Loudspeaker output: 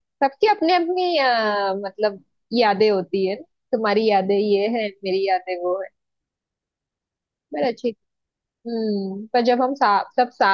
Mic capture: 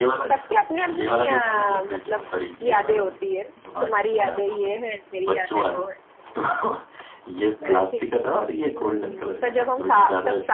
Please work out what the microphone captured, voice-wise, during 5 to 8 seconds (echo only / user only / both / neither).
both